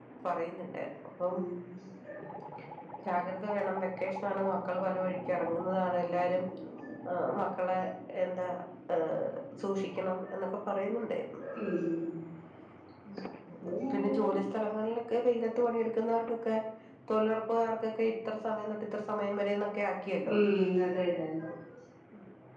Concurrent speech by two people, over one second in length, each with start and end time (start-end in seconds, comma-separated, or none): none